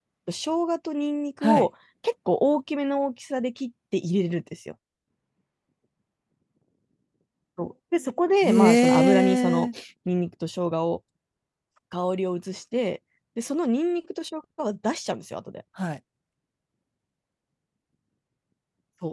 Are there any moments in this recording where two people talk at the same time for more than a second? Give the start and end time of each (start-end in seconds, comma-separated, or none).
8.4-9.7